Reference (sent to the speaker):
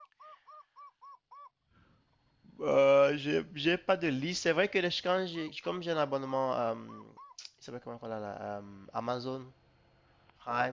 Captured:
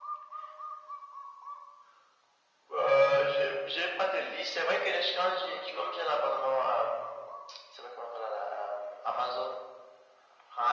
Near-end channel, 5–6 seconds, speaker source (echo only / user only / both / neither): echo only